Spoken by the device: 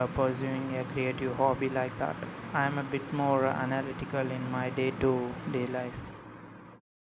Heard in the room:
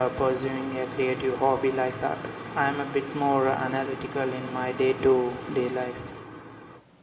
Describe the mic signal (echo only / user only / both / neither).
echo only